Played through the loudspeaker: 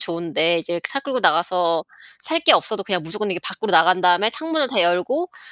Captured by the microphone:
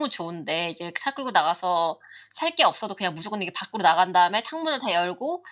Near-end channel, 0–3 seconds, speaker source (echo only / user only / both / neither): echo only